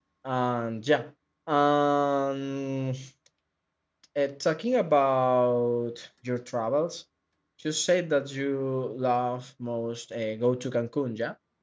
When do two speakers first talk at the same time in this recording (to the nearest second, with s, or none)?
none